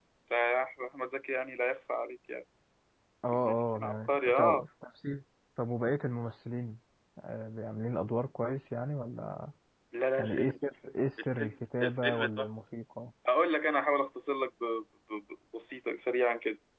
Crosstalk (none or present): present